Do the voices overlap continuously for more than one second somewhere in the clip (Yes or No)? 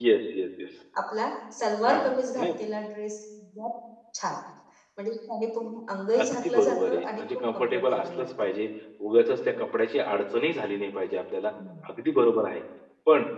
Yes